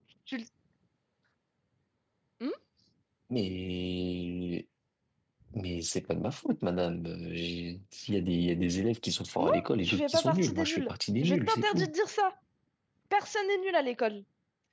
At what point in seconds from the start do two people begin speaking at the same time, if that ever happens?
9.4 s

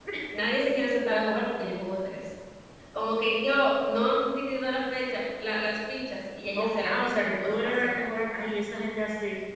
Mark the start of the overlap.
6.5 s

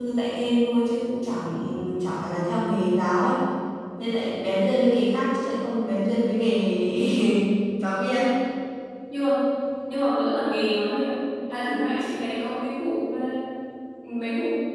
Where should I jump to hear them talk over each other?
none

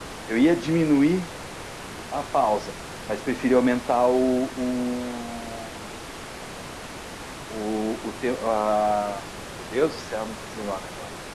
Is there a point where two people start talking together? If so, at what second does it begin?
none

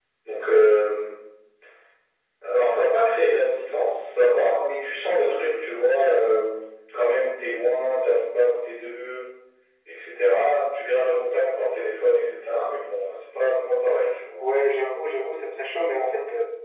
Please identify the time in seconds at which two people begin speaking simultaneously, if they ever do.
none

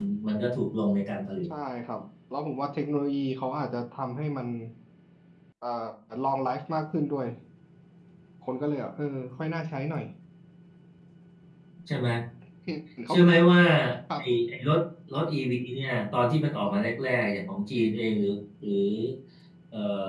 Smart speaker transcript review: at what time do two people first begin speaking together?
none

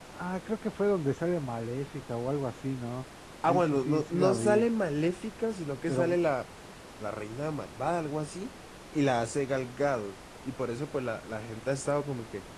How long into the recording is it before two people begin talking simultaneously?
3.4 s

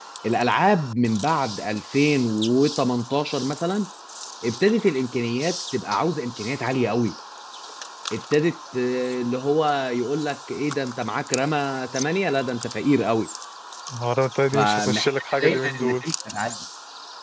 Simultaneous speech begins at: 14.5 s

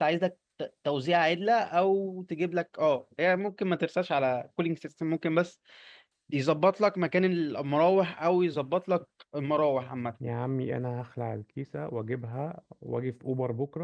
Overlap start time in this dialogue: none

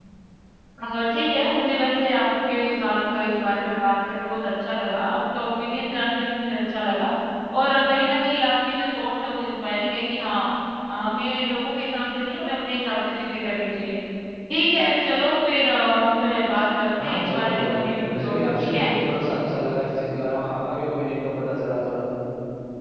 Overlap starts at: 17.0 s

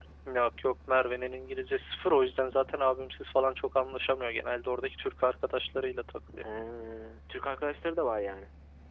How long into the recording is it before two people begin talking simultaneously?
none

